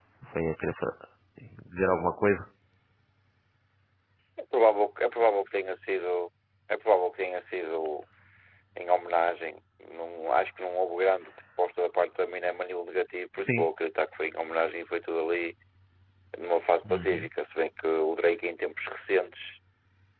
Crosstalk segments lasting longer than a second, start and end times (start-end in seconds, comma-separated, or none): none